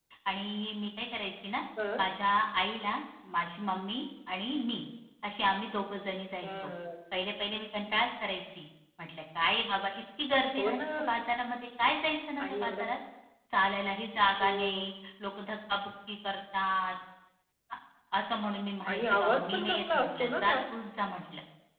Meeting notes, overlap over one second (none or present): present